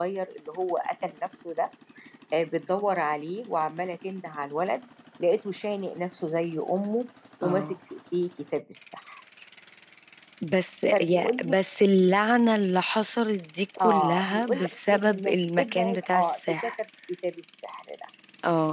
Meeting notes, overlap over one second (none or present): present